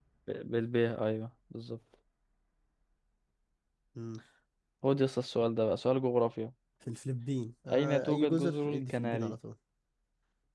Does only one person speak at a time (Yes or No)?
No